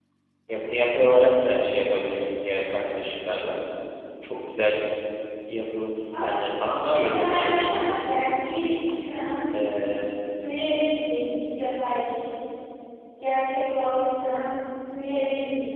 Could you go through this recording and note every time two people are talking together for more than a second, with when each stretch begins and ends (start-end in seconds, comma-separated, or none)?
6.8-8.0